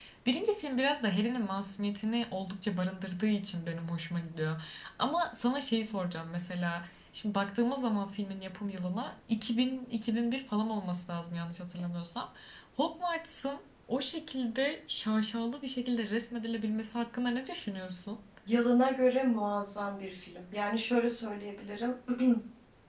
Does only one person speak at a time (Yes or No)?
Yes